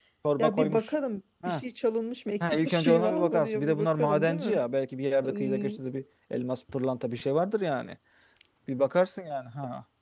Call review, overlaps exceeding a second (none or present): present